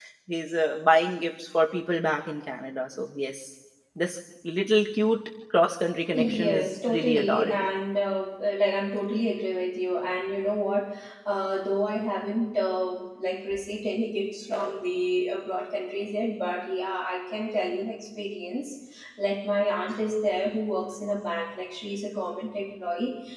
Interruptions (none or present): present